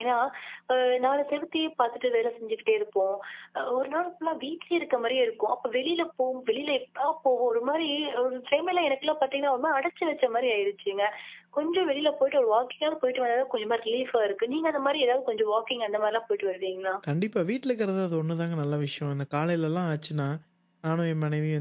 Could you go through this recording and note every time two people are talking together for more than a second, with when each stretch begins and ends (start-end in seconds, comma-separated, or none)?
none